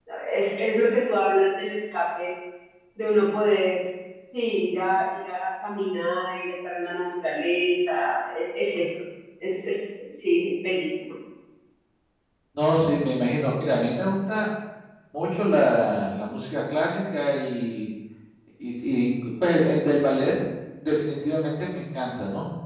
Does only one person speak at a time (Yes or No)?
Yes